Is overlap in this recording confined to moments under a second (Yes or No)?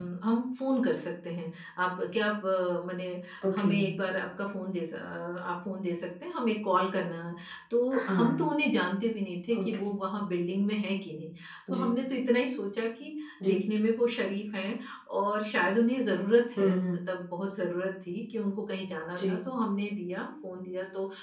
Yes